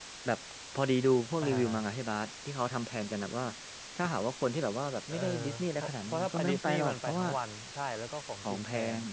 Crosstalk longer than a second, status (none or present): present